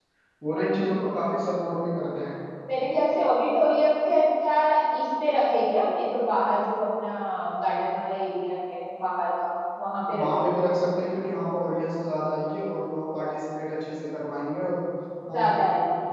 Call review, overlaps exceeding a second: none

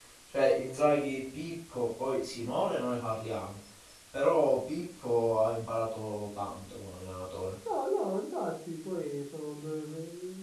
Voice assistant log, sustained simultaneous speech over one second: none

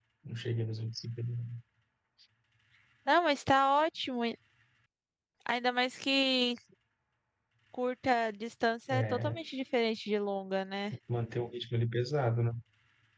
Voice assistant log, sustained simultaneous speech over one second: none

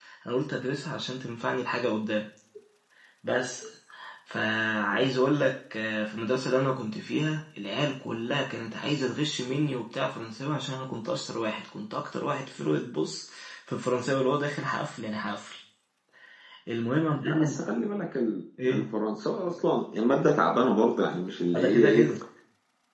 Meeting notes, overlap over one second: none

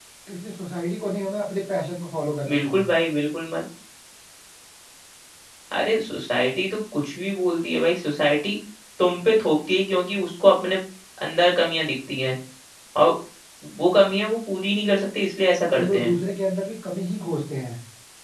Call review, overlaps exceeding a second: none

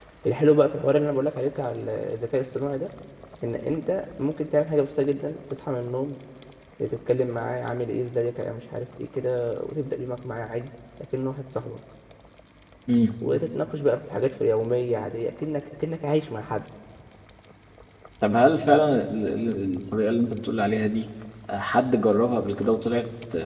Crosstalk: none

